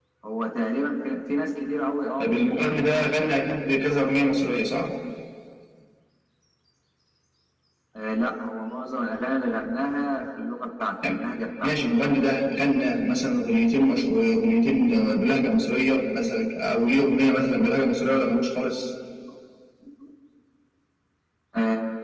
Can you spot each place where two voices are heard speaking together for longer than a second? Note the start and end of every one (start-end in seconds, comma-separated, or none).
none